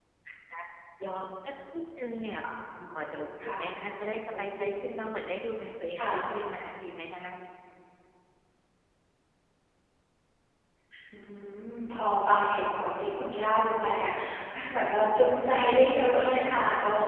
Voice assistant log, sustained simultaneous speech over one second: present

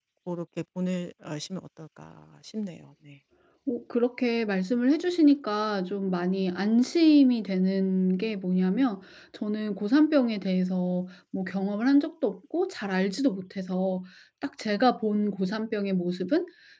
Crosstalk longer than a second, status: none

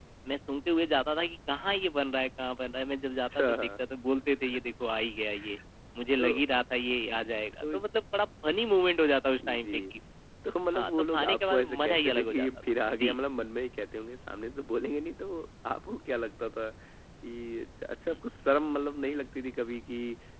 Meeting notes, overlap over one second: present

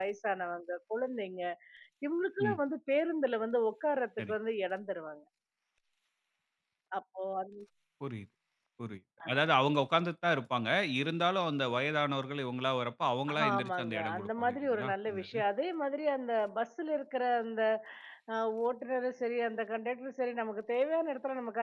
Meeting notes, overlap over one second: present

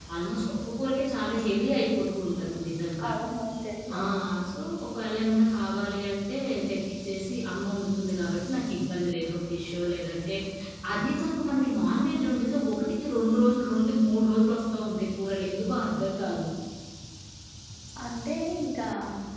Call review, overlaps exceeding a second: none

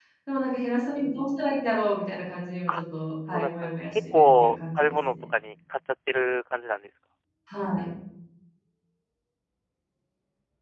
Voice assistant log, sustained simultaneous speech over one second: present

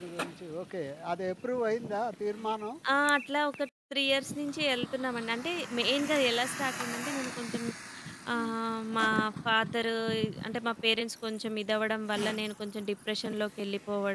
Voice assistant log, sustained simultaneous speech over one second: none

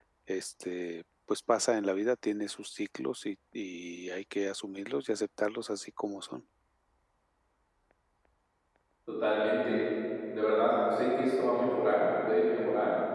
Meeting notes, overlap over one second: none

